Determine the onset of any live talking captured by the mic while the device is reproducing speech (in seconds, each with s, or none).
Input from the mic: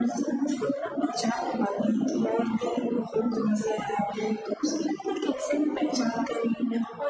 none